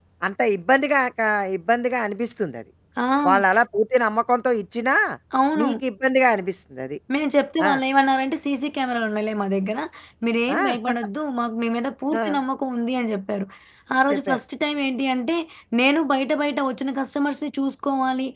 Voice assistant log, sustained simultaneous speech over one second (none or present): none